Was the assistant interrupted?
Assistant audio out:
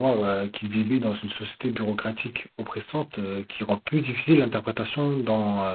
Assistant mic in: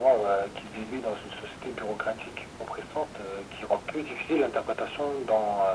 No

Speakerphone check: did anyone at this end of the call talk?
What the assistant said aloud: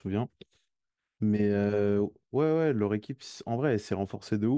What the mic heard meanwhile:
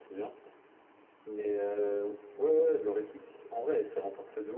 No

